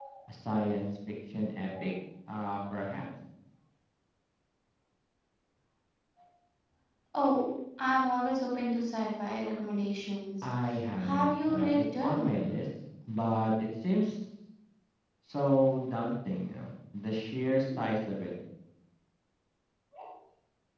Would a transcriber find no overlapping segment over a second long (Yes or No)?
No